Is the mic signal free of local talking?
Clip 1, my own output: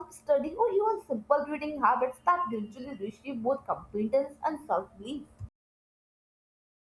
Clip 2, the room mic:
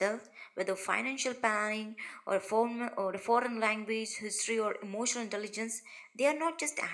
No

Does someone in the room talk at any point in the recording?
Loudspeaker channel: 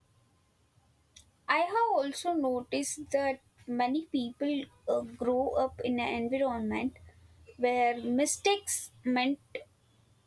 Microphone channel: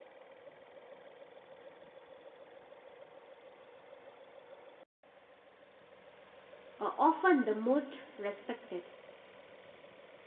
Yes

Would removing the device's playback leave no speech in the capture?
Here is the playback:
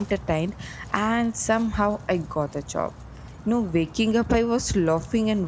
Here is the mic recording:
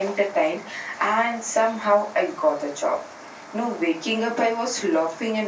Yes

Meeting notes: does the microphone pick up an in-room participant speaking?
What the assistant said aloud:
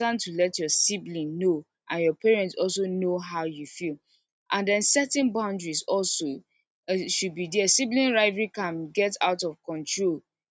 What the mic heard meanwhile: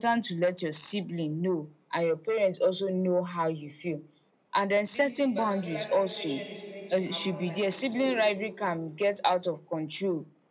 Yes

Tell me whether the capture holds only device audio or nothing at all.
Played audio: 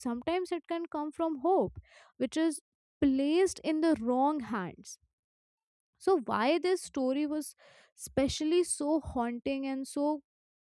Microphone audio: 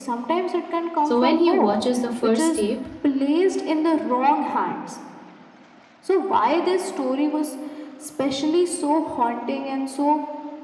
No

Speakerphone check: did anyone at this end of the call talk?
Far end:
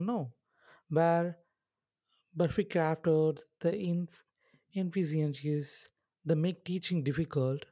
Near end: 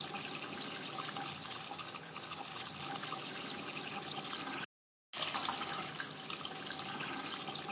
No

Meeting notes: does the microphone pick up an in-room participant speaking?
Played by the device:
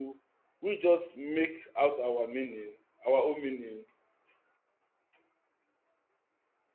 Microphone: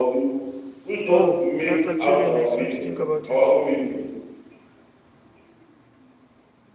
Yes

